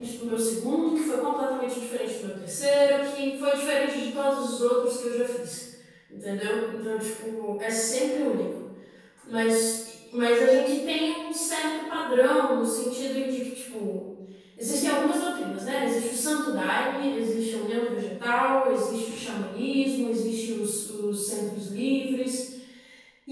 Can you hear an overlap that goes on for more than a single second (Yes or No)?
No